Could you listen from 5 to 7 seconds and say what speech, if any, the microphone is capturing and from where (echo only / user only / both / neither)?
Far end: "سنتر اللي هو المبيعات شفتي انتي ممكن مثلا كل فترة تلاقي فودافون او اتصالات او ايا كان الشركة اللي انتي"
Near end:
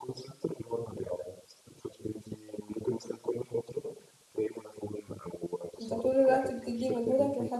both